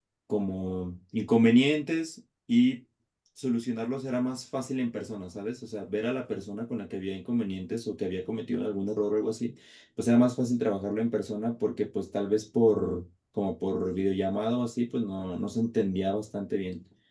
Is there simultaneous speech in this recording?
No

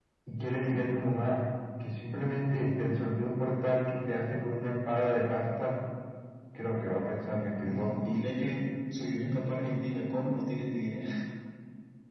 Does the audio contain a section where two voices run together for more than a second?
No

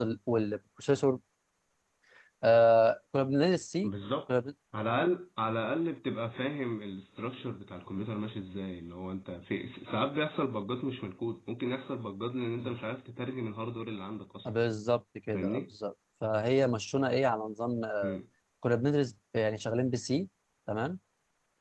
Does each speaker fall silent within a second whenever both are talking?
Yes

